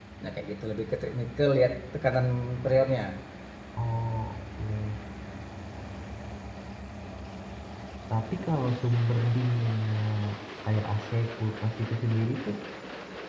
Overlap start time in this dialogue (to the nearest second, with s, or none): none